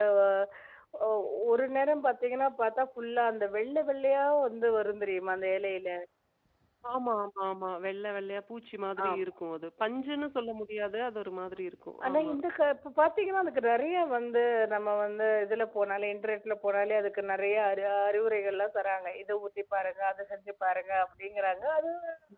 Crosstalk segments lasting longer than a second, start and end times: none

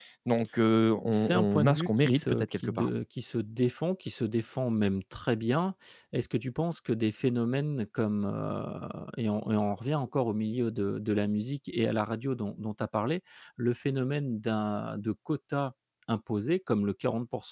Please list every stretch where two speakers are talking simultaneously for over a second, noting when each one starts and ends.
1.1-2.9

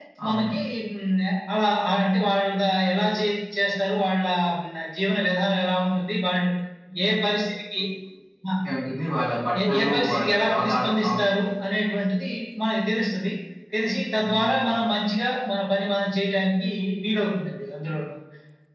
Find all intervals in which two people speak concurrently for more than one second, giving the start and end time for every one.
9.7-11.3

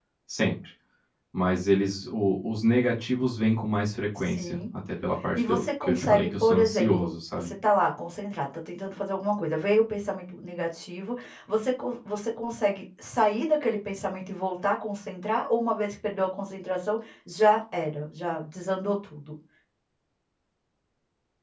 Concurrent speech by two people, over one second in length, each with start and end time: 5.3-7.5

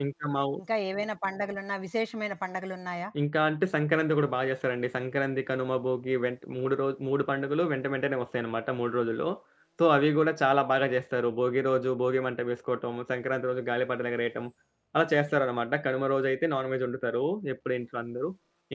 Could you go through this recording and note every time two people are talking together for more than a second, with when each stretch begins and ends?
none

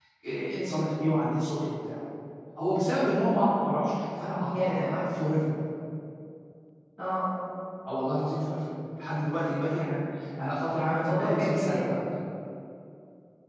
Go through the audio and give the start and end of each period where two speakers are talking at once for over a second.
10.7-12.0

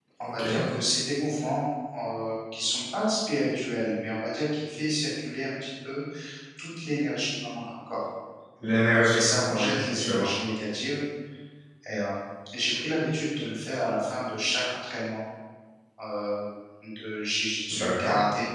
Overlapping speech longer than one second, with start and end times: 9.1-10.3

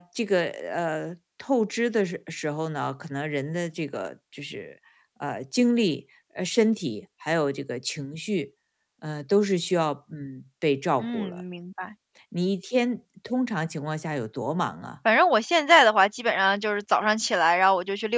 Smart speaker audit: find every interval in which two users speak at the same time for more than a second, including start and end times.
none

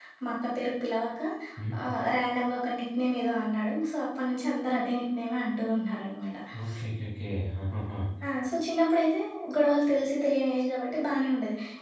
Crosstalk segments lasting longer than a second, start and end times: none

